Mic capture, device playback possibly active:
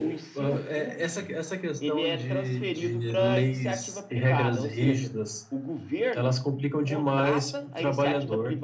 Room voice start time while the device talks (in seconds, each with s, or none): none